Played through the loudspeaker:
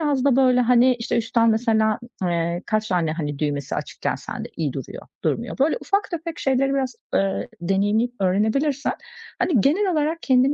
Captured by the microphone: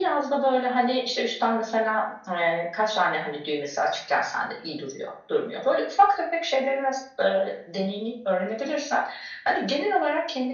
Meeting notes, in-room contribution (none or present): none